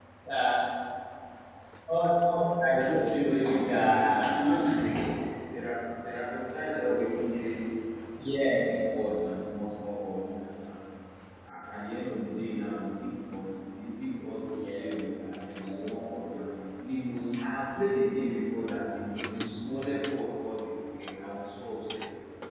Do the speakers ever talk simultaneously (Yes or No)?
Yes